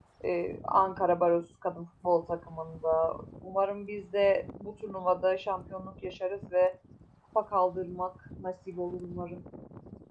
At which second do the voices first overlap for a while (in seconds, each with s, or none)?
none